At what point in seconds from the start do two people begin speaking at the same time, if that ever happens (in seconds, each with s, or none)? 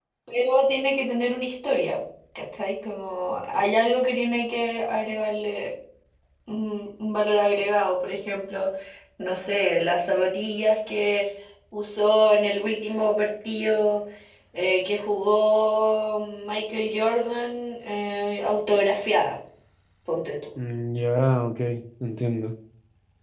none